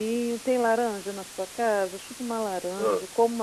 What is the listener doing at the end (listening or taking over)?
listening